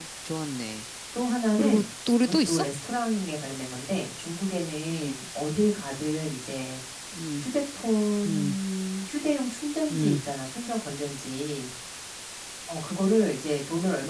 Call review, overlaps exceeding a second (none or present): none